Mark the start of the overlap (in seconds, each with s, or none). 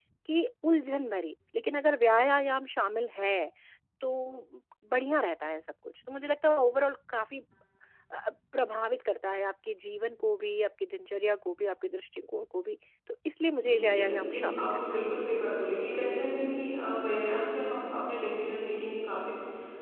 13.6 s